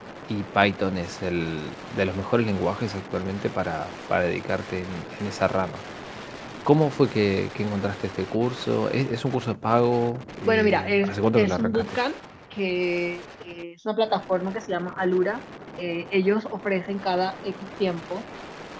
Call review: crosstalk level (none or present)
present